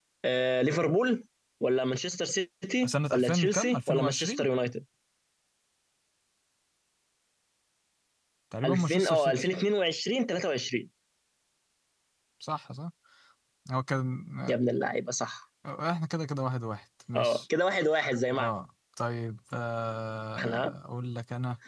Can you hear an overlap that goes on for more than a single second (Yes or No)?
Yes